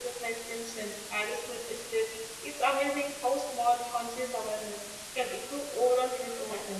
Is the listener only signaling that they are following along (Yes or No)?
No